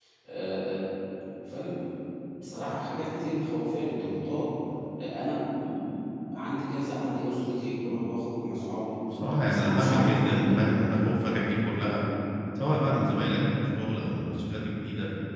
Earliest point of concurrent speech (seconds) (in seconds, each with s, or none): 9.4 s